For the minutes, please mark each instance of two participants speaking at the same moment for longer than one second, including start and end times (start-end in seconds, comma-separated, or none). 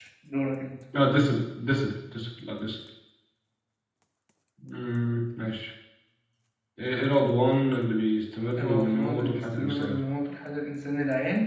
8.6-10.0